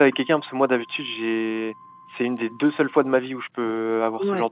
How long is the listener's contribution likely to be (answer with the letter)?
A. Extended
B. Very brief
A